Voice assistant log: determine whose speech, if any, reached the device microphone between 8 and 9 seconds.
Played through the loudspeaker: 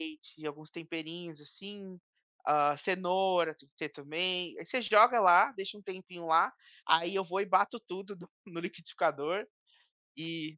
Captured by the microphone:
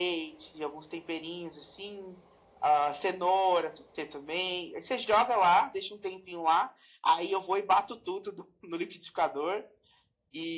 echo only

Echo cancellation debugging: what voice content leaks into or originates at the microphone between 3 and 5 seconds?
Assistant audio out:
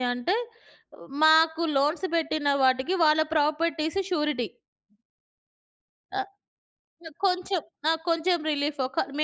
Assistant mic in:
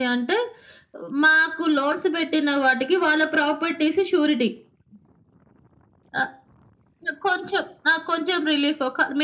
echo only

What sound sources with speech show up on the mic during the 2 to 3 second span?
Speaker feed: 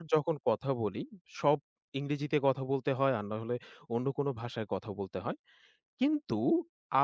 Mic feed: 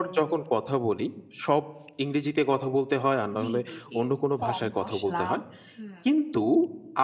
echo only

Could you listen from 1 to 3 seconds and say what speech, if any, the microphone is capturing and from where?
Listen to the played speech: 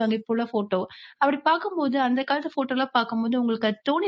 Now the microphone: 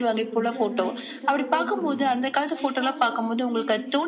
both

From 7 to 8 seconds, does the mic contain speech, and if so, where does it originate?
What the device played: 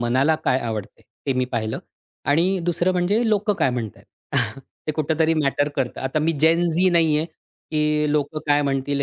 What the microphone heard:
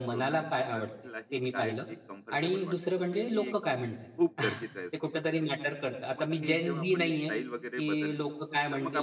both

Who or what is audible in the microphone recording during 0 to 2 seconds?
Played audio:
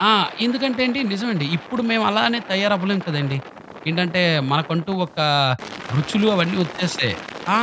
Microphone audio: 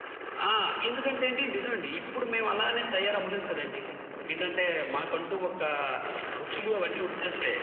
echo only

